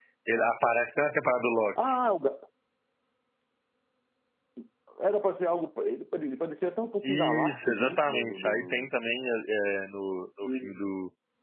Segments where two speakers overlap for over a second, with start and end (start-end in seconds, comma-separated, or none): 7.0-8.9